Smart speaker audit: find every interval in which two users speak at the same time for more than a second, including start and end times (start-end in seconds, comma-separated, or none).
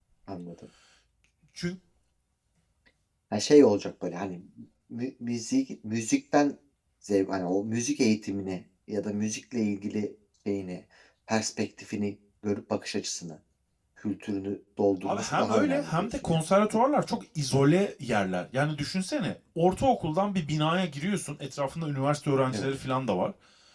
15.0-16.4